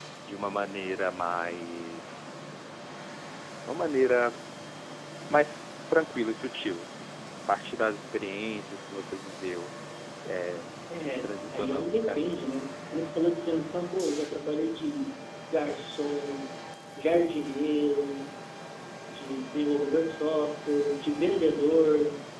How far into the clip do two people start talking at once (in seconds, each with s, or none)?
11.2 s